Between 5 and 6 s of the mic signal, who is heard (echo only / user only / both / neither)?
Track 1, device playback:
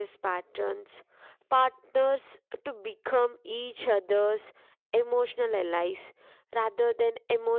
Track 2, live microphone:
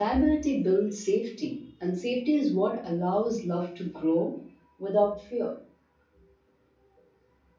user only